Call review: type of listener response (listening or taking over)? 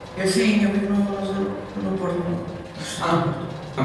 taking over